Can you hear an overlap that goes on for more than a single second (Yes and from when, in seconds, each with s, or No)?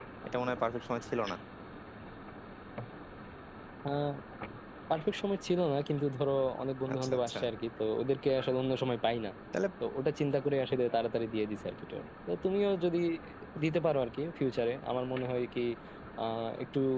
No